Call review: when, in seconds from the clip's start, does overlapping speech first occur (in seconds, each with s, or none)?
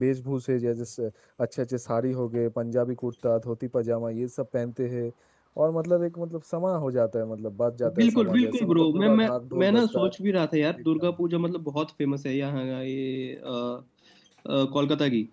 8.0 s